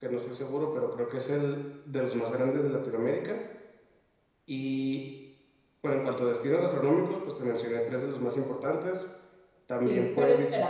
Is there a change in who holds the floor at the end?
Yes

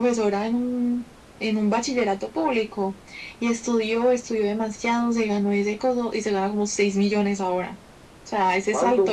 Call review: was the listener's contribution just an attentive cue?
Yes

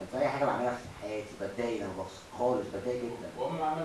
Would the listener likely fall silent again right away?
No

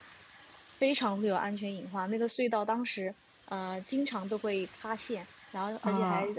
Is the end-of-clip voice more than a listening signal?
No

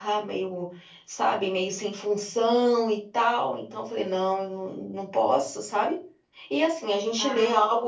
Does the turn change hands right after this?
No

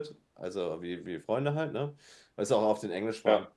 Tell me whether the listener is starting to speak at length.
No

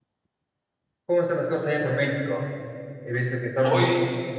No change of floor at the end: Yes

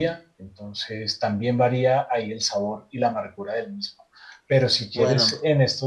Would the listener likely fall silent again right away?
Yes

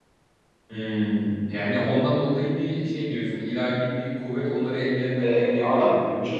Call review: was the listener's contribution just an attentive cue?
No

